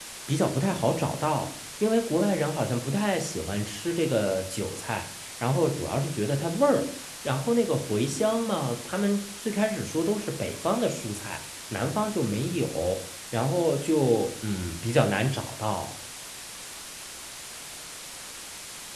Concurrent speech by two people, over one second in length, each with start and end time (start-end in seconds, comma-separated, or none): none